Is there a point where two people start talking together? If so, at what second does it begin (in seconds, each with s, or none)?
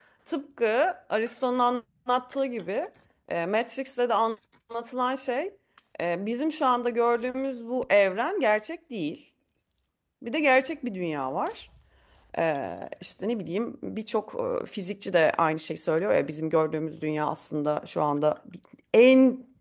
none